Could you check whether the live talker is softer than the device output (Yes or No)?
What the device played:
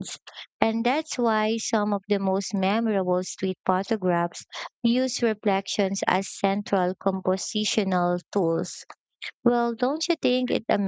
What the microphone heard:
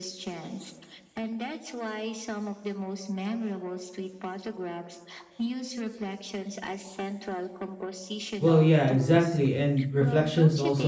No